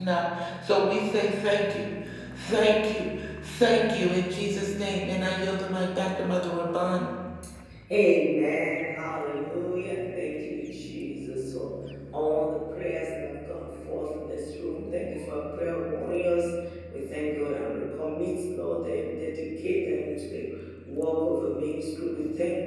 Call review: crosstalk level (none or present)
none